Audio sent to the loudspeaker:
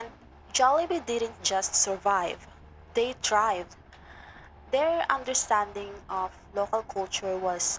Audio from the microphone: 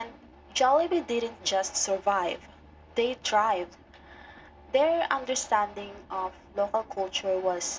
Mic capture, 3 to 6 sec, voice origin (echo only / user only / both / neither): echo only